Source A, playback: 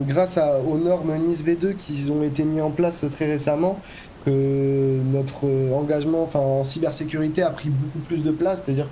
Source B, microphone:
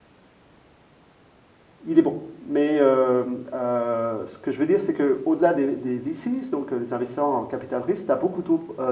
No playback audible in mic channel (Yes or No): Yes